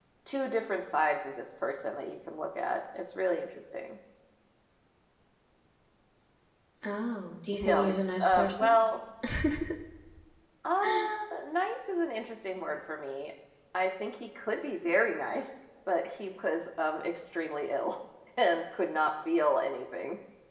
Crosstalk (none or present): present